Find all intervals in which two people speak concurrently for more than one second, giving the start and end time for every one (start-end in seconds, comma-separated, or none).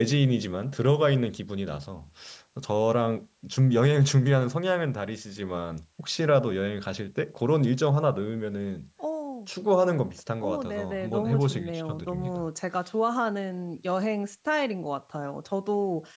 10.4-12.4